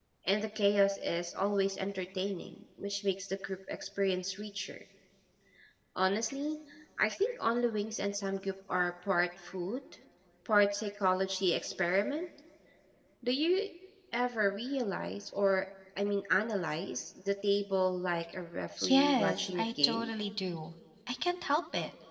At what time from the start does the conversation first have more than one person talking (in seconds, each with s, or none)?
18.8 s